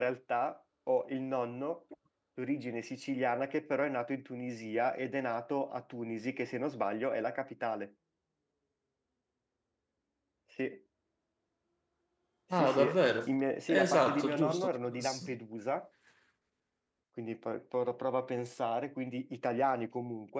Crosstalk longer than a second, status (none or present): present